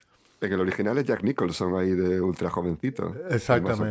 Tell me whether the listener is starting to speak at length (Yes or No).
Yes